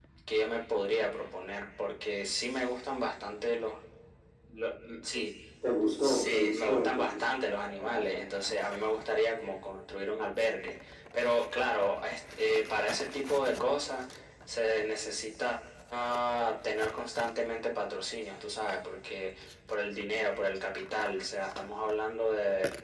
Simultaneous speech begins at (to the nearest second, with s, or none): 6 s